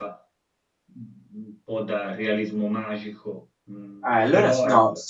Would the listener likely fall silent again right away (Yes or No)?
No